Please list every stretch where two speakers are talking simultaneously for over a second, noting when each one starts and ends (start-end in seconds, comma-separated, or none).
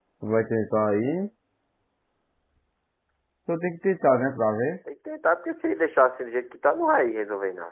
none